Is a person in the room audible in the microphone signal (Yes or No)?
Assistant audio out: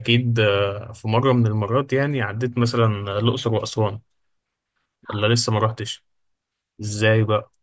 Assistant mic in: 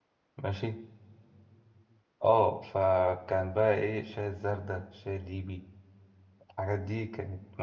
Yes